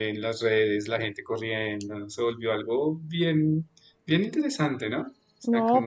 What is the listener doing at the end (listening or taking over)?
taking over